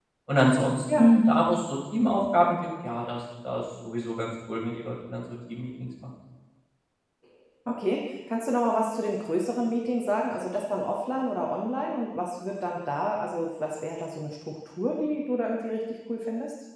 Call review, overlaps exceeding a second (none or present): none